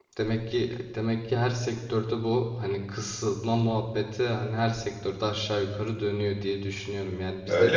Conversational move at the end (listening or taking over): listening